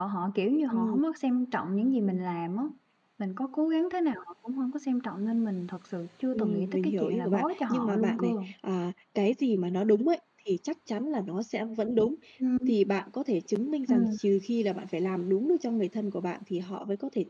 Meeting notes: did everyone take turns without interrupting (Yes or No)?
No